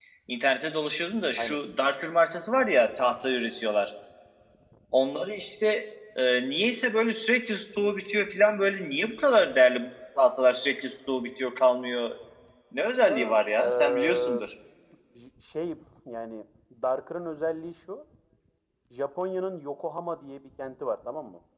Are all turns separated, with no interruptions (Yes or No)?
No